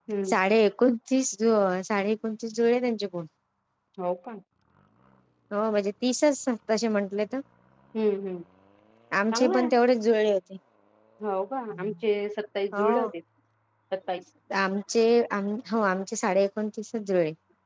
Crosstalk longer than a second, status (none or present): none